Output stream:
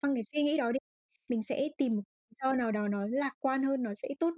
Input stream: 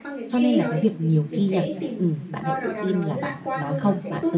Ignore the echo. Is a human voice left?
Yes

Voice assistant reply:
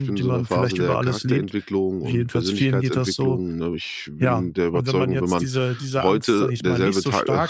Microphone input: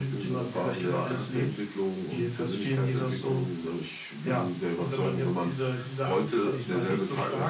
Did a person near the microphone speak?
No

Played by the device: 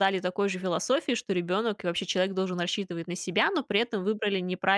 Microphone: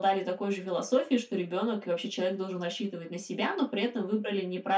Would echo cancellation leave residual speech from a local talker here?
No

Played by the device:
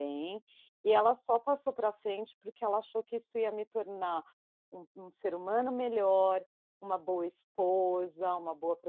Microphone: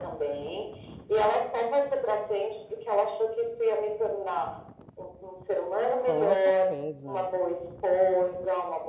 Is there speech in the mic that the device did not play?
Yes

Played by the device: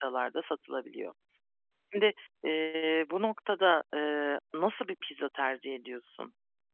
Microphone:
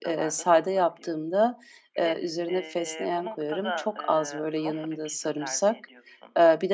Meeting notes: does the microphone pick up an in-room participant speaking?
Yes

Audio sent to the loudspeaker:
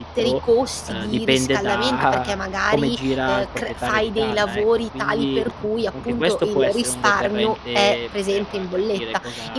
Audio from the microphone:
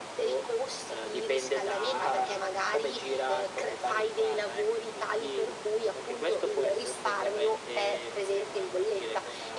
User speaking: No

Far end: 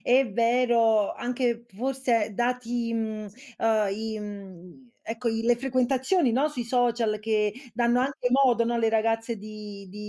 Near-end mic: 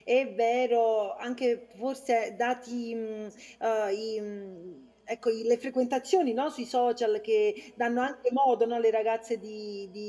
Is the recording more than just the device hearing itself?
No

